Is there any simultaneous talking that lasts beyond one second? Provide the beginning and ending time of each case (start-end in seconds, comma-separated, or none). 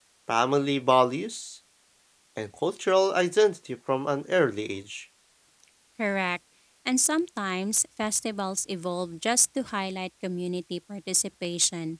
none